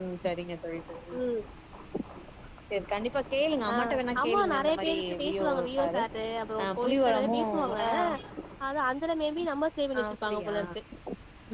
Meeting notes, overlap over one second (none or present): present